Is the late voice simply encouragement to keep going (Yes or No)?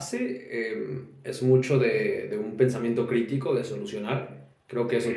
Yes